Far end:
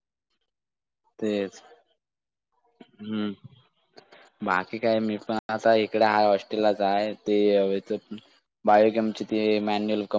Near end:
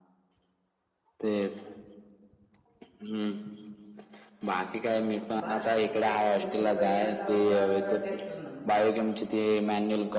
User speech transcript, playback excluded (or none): बाज म्हणजे तुम्ही बैलांना लावता का ट्रॅक्टर ना?